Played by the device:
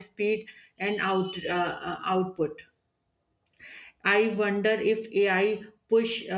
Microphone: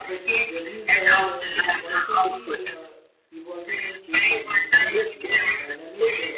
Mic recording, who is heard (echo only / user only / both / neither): both